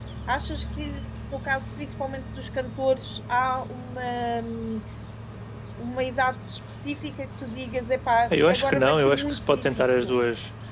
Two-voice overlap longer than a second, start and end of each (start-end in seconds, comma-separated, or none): 8.3-10.2